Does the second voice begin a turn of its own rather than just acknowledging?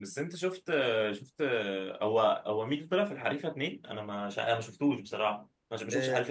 Yes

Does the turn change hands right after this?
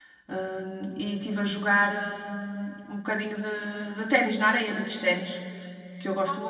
Yes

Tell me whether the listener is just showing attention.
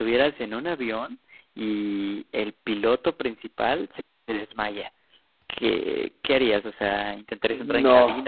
Yes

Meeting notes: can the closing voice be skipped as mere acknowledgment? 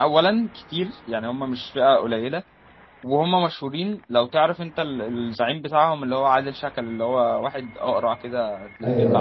No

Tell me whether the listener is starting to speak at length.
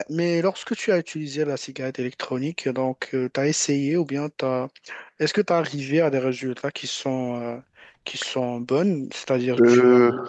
No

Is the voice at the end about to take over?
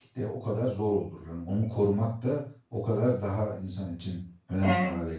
Yes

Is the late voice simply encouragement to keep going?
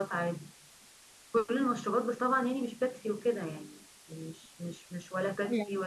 Yes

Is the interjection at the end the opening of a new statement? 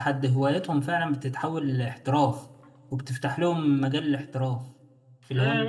Yes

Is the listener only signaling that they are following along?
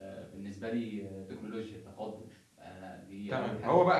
No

